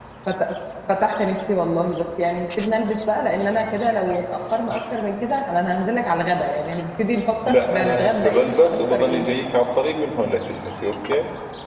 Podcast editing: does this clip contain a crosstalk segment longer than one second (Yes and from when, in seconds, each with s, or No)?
Yes, from 7.4 s